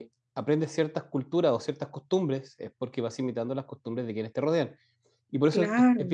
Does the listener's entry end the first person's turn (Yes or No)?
No